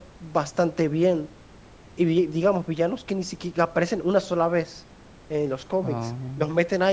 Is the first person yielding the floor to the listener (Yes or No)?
No